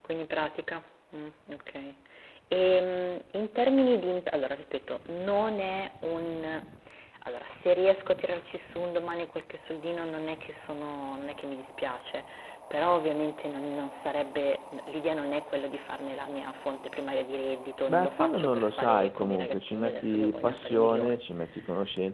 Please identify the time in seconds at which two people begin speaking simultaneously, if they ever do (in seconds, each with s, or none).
17.9 s